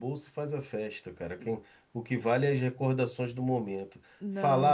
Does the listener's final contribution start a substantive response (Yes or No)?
No